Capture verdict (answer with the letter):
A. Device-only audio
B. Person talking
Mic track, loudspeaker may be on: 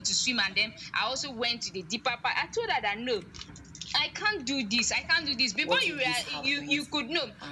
B